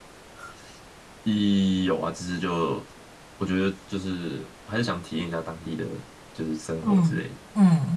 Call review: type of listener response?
taking over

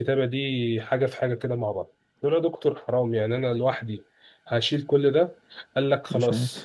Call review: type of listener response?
listening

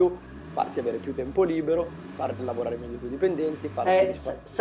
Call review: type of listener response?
taking over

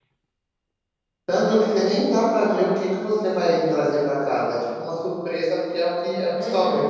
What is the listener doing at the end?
taking over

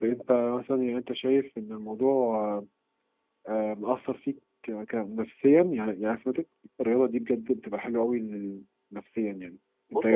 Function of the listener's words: taking over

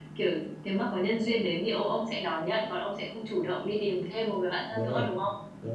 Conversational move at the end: taking over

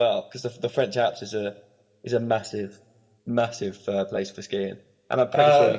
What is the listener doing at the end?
listening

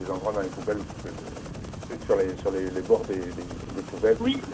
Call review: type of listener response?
listening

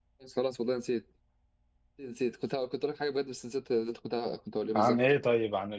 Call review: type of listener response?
taking over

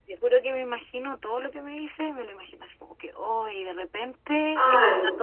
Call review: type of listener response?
listening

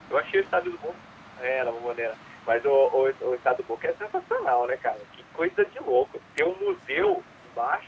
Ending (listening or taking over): listening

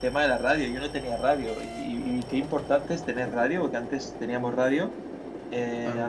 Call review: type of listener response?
listening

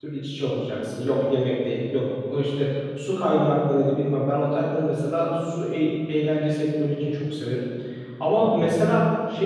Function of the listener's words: listening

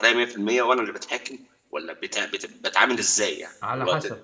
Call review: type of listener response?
taking over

